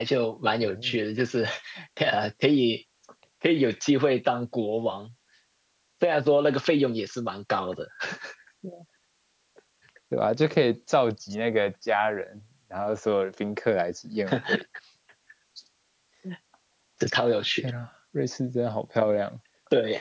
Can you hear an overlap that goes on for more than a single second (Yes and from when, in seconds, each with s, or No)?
No